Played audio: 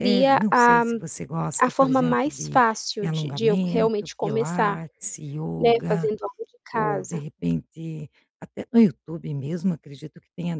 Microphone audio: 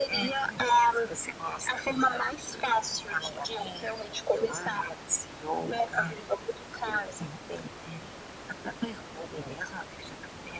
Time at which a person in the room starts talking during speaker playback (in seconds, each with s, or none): none